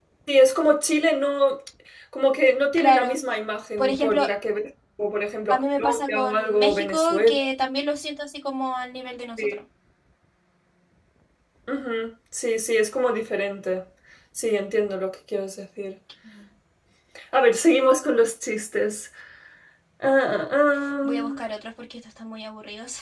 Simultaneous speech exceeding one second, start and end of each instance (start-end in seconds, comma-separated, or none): 5.5-7.3